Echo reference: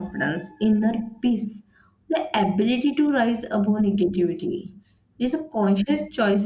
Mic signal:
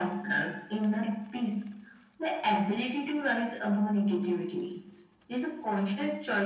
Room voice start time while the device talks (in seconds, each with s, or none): none